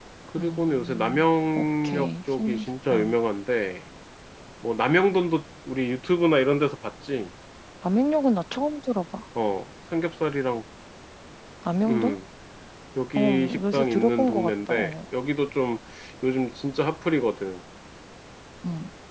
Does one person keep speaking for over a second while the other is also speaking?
Yes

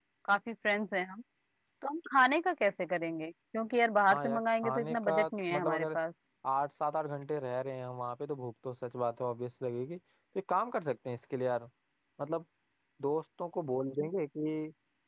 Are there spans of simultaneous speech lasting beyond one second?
Yes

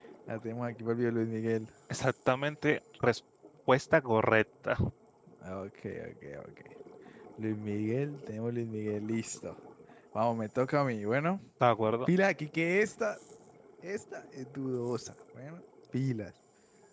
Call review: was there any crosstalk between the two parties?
No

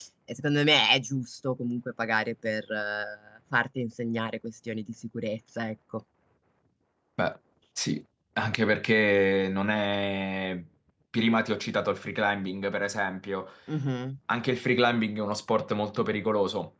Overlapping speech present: No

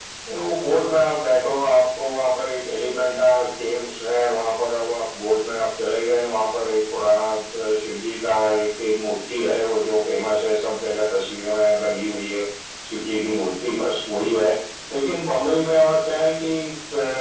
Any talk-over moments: No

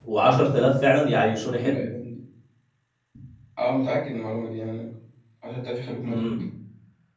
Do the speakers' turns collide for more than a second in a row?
No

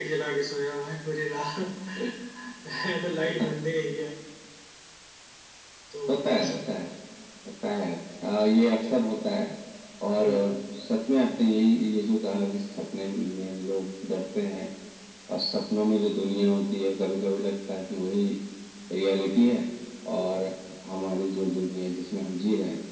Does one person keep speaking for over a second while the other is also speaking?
No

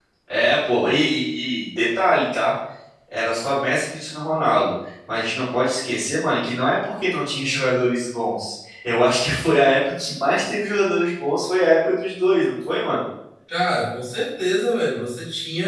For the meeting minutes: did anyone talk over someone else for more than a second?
No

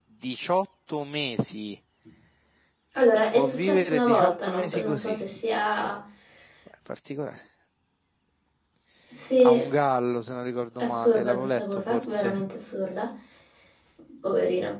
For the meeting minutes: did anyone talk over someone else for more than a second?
Yes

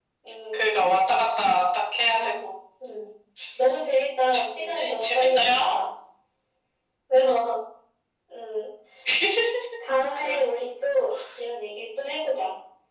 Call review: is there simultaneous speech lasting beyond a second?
Yes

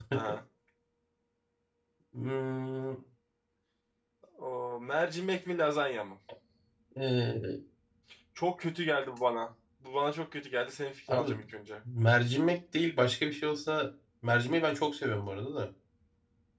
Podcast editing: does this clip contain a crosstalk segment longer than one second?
No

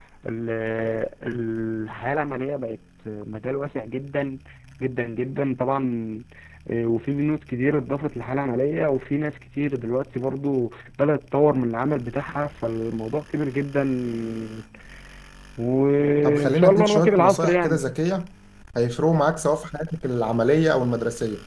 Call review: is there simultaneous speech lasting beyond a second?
Yes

